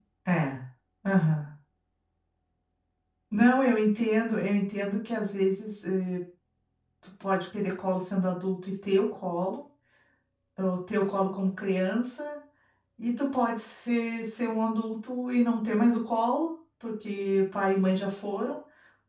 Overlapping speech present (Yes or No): No